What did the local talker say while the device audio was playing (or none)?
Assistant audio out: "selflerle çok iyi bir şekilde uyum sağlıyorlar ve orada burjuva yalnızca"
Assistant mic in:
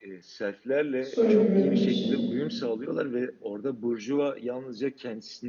Soylu görünme şeyi.